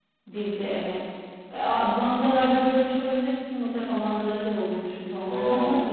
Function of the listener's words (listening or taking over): listening